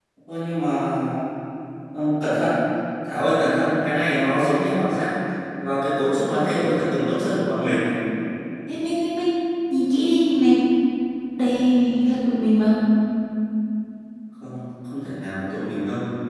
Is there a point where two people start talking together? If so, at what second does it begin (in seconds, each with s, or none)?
none